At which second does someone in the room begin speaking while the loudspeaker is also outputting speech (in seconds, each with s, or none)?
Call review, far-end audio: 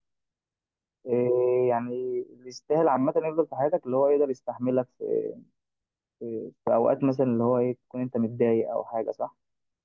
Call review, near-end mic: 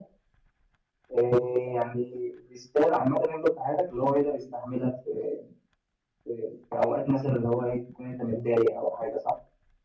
none